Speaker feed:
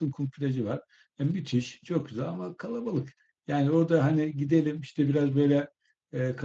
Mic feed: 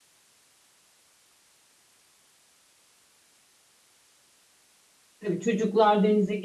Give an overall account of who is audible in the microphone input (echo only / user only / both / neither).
user only